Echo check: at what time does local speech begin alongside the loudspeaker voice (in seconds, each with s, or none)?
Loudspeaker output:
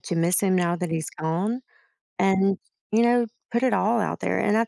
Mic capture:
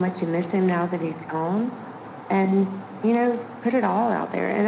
none